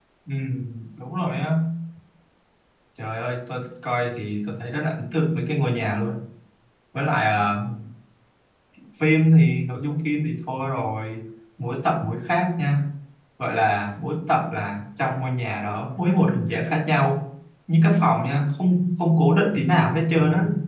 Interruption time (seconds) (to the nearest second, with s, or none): none